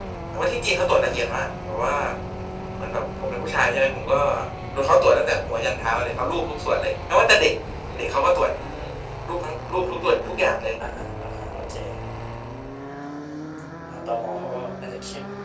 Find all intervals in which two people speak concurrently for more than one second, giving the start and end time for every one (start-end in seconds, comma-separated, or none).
none